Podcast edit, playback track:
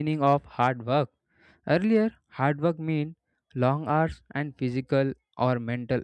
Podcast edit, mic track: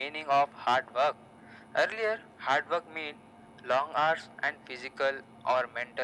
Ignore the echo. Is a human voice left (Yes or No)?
No